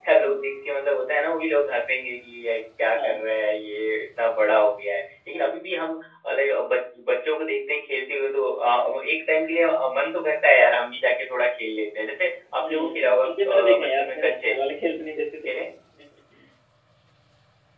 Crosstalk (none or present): present